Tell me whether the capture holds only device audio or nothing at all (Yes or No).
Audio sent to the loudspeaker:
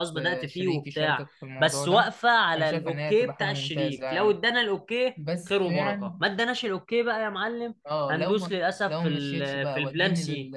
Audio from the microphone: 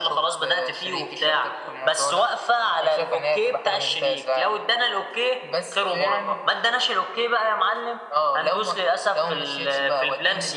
Yes